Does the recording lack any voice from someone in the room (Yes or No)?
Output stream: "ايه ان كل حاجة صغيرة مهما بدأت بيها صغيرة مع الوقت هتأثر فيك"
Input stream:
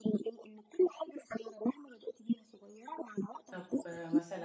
No